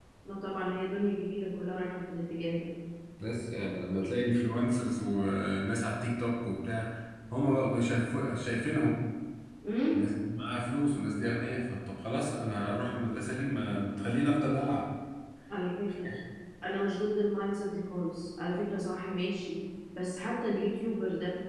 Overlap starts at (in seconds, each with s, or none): none